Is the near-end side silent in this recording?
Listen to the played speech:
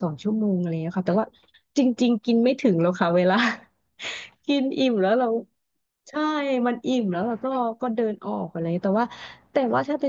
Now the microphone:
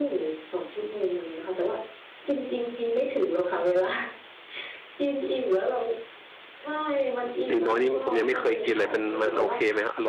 No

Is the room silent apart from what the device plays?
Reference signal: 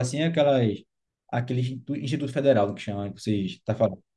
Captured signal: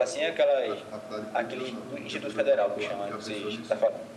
No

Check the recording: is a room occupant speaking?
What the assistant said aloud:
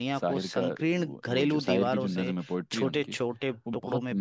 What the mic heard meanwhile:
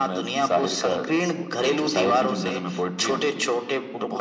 No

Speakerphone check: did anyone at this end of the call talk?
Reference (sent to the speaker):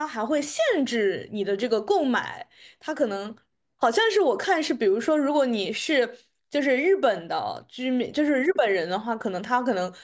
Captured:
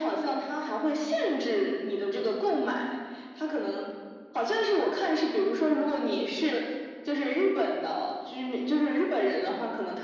No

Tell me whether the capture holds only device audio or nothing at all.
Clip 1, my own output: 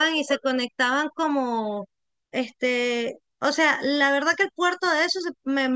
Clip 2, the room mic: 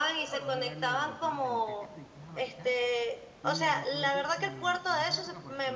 No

